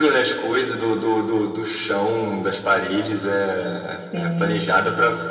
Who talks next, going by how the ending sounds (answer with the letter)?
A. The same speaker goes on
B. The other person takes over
A